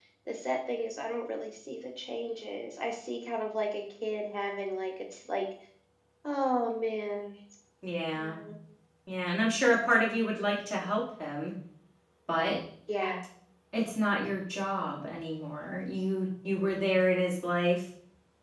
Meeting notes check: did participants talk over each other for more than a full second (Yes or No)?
No